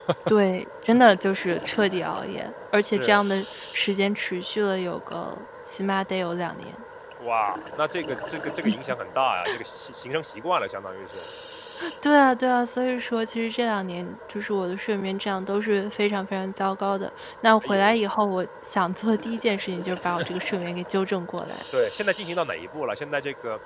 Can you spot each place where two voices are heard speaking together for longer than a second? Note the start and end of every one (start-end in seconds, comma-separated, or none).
none